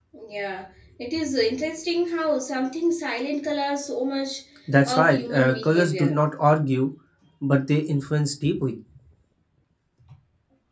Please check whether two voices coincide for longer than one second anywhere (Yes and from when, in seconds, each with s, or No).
Yes, from 4.9 s